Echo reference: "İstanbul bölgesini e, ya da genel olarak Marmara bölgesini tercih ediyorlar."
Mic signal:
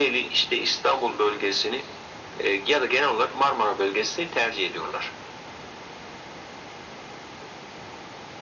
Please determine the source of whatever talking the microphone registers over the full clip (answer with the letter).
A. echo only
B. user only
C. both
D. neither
A